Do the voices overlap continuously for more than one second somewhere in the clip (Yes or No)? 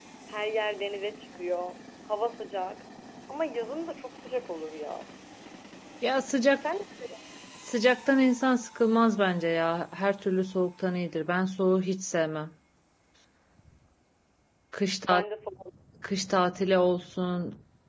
No